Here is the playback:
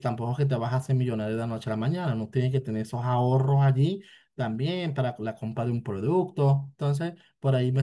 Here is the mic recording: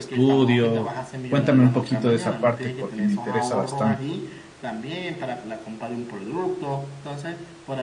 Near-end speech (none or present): present